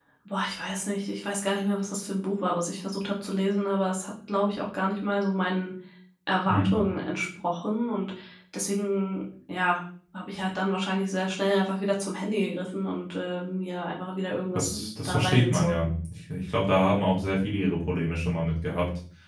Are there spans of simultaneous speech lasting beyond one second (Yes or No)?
Yes